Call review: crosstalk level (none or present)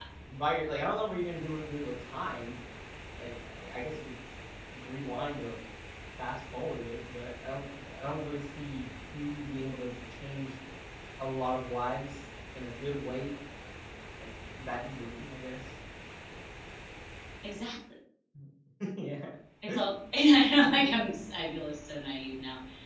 none